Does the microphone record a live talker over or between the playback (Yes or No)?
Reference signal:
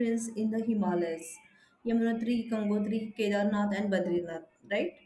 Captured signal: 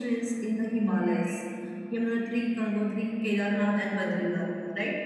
No